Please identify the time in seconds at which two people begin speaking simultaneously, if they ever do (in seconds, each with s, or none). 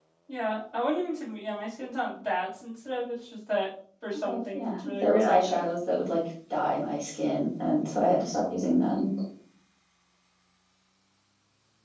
4.2 s